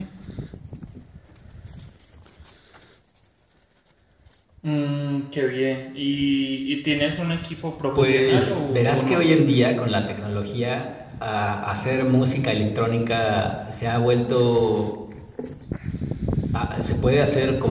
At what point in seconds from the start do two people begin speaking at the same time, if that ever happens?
8.0 s

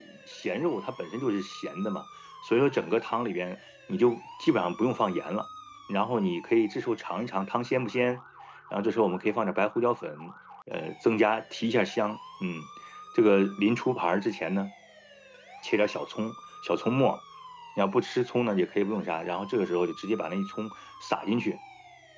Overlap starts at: none

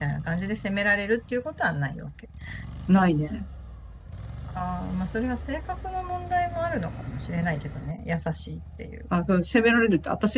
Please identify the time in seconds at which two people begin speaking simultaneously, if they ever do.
none

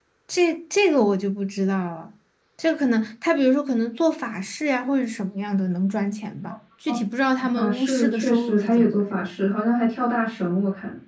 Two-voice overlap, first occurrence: 7.5 s

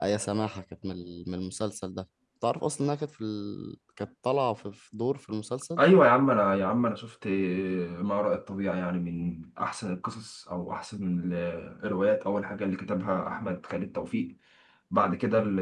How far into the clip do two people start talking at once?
none

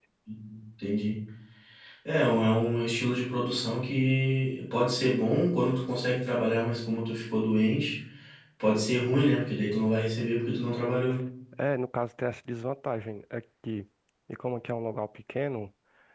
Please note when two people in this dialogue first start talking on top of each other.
none

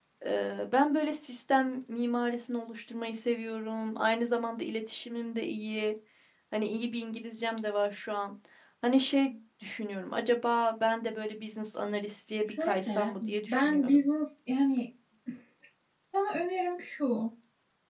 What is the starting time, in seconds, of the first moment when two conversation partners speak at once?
12.5 s

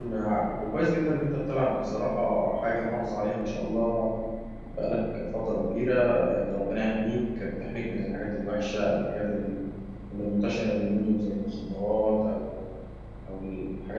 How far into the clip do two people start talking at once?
none

